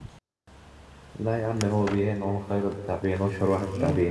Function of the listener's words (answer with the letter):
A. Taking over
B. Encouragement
A